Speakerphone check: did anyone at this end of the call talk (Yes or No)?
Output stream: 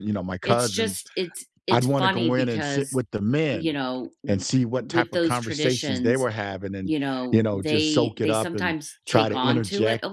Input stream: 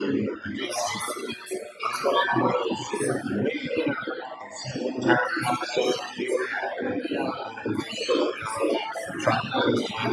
No